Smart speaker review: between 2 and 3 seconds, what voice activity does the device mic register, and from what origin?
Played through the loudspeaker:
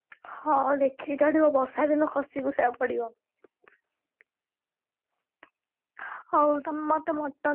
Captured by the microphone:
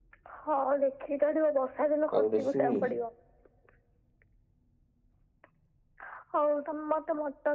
both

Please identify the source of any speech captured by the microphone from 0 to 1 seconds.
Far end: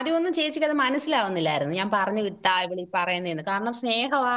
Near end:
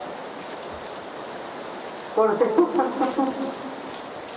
neither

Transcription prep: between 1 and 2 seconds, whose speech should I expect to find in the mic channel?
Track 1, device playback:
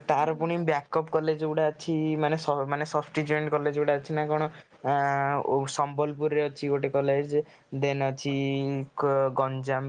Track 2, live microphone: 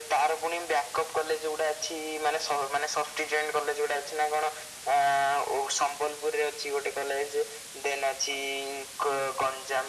echo only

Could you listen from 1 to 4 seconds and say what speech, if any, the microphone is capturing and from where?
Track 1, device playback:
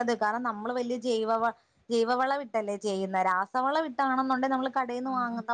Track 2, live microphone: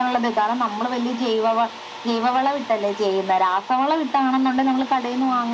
echo only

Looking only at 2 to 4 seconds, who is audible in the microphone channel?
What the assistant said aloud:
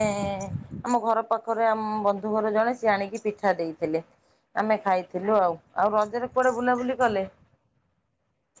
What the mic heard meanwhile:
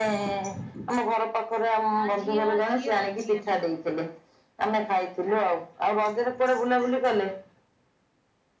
both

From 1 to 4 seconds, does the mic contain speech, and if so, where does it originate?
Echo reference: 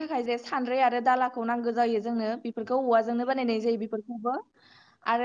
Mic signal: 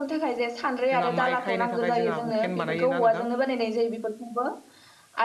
both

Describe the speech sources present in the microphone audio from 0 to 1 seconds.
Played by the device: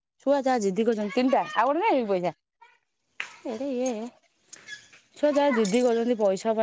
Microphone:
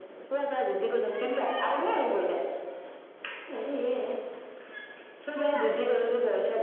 echo only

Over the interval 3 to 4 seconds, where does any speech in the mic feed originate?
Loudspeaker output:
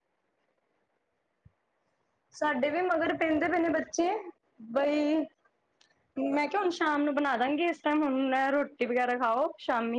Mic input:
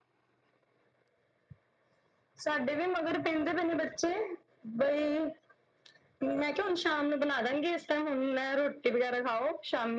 echo only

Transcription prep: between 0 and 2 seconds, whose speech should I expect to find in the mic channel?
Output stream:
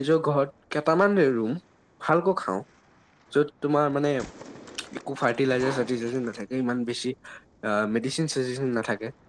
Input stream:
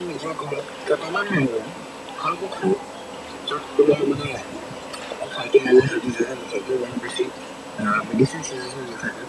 echo only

